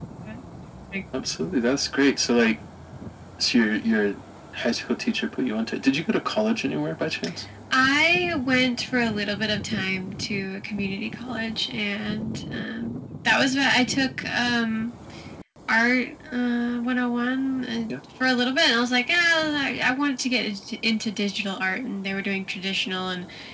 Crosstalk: none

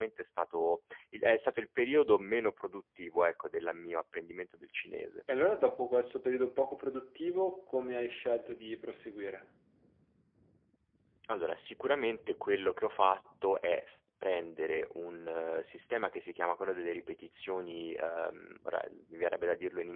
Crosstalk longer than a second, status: none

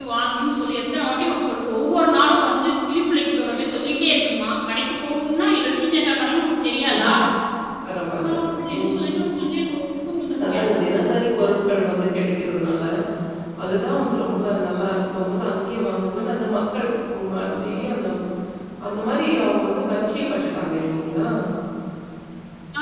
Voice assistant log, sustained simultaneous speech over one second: none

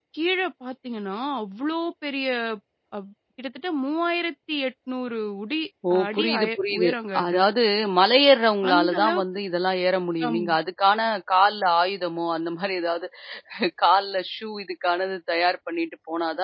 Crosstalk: present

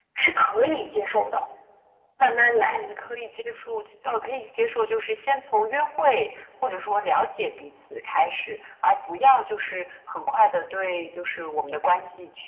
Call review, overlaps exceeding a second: none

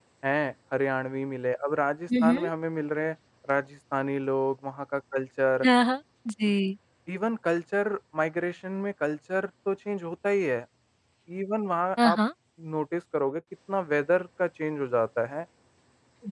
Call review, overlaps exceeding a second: none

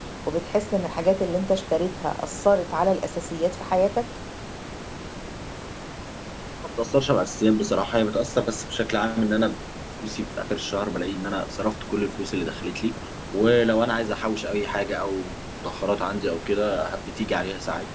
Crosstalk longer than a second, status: none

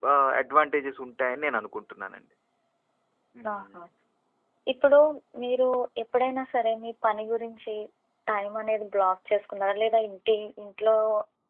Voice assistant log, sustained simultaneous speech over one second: none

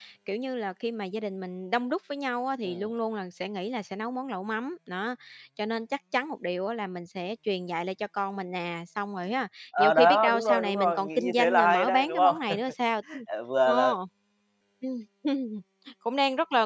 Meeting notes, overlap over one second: present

